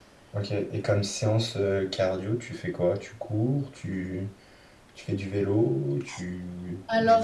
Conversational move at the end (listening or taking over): taking over